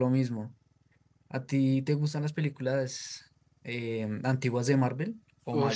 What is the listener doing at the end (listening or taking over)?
taking over